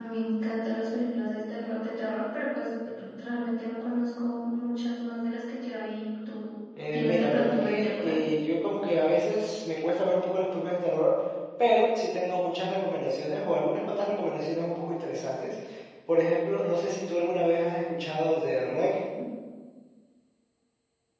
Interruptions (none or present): present